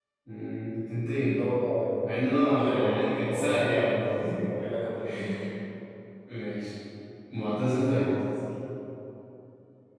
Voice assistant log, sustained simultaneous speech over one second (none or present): present